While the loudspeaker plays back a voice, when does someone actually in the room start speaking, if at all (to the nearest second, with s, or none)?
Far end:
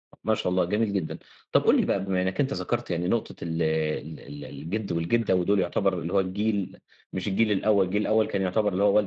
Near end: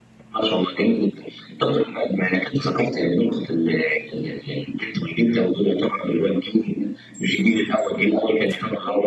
none